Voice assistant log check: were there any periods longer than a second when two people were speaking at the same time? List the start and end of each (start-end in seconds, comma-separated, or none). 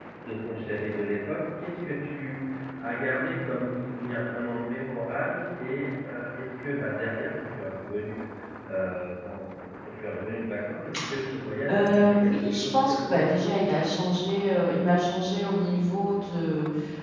11.7-13.2